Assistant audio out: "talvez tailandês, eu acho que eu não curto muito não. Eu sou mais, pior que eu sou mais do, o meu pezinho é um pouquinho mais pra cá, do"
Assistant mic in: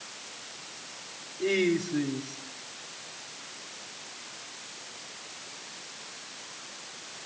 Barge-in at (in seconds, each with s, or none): 1.4 s